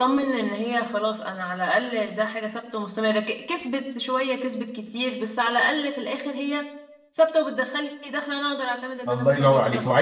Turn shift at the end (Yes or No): Yes